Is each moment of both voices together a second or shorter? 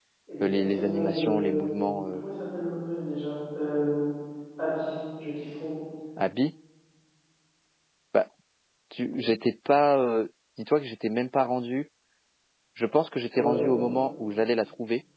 No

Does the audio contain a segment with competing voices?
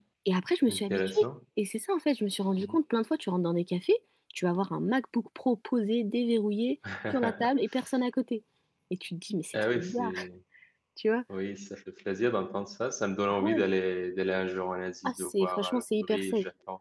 Yes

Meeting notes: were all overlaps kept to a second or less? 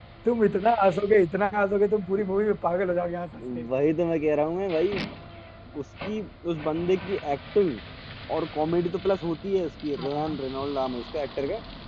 Yes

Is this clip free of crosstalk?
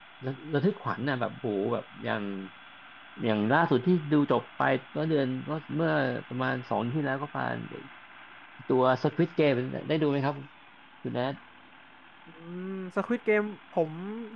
Yes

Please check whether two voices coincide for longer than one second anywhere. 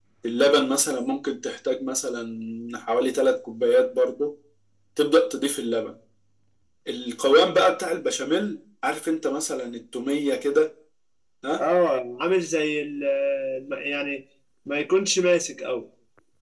No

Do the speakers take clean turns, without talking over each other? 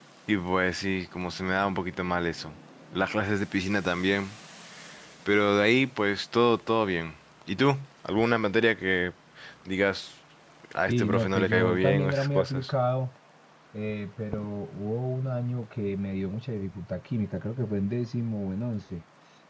No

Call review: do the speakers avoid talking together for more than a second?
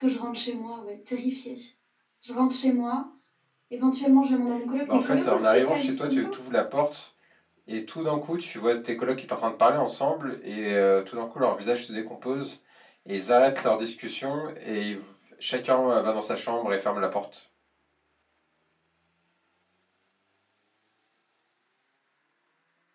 No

